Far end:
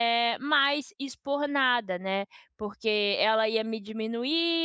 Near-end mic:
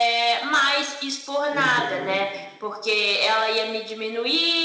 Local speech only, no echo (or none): uhum.